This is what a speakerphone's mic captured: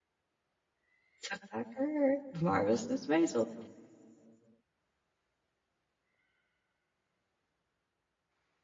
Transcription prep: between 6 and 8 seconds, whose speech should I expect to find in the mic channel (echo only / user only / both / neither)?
neither